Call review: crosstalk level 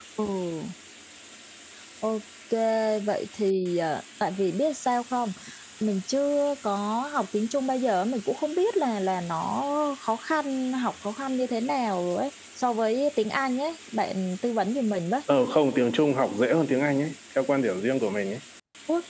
none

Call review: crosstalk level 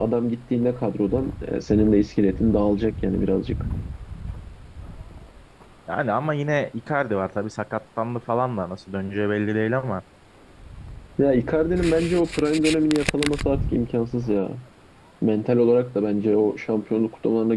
none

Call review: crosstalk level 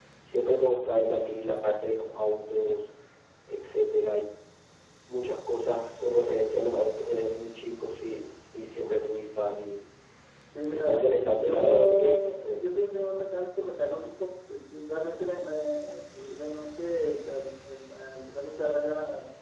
present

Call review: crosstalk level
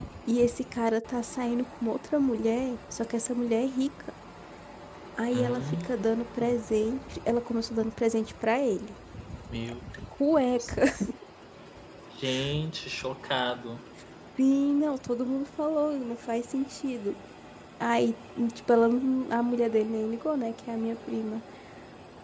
present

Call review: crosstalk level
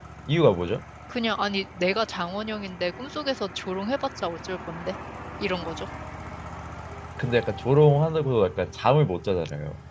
none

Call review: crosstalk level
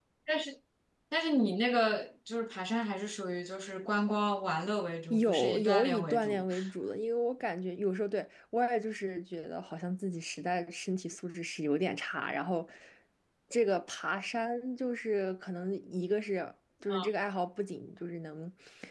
present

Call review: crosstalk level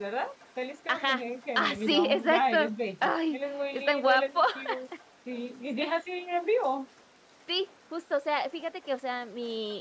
present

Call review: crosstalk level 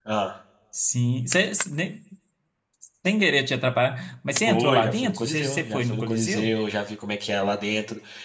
present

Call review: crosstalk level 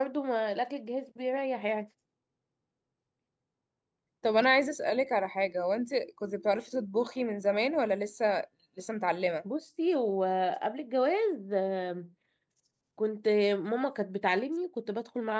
none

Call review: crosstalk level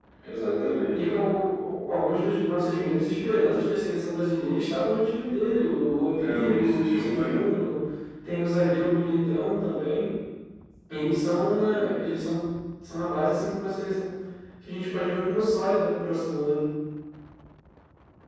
present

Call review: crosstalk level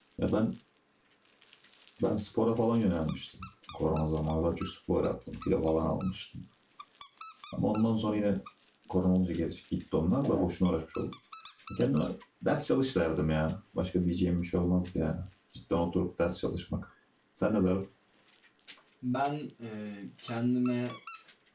none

